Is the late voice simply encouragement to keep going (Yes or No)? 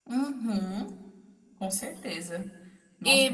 No